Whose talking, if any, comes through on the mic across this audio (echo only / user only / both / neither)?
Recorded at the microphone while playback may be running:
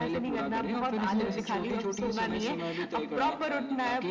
both